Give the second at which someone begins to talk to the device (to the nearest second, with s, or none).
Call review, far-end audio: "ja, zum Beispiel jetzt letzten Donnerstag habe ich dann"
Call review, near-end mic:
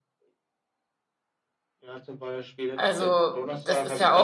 3 s